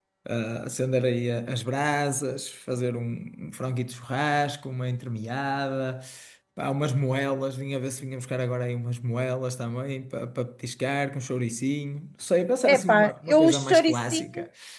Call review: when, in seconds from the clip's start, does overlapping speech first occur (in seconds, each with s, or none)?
12.6 s